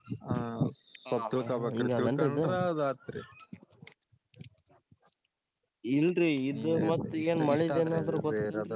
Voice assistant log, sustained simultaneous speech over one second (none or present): present